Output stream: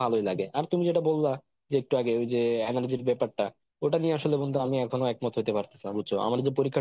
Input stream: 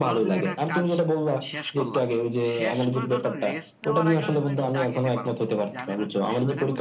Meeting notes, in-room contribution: present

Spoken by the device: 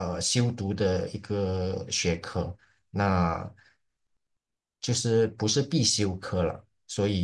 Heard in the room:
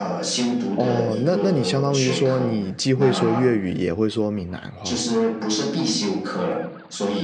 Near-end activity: present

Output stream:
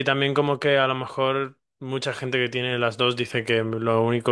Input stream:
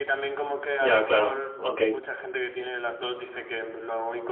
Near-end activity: present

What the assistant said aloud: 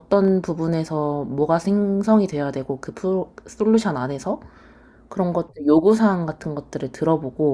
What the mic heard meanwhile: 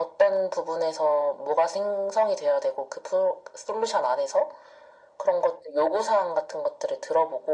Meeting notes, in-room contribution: none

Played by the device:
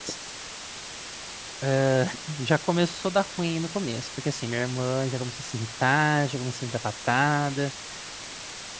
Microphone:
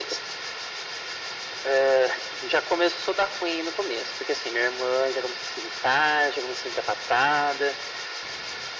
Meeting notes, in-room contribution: none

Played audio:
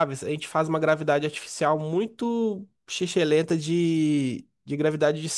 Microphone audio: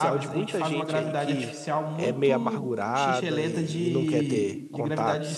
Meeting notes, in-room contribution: present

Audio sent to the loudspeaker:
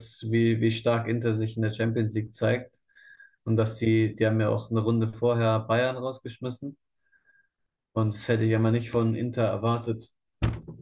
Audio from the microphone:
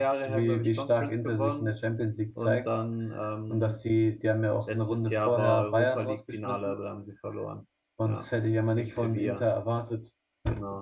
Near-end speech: present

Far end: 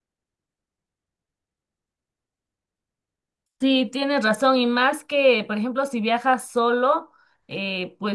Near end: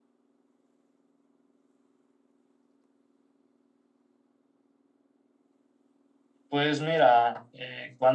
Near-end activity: present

